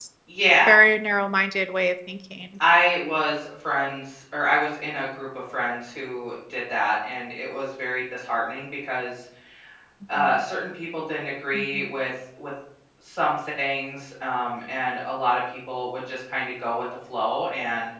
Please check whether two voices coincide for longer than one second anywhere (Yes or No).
No